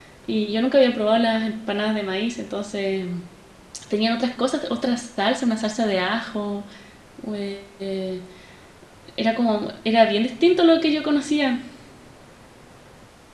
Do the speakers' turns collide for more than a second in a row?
No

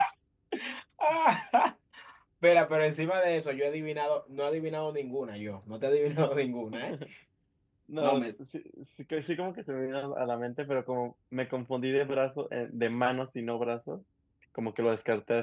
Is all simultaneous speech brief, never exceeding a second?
Yes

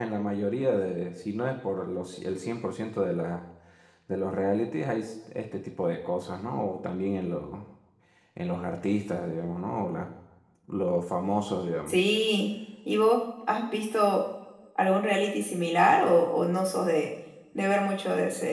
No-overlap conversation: Yes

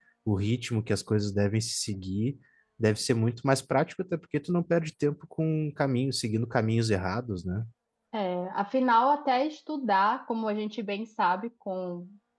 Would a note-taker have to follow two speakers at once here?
No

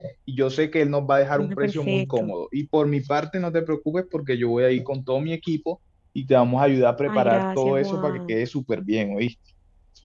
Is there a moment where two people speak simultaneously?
Yes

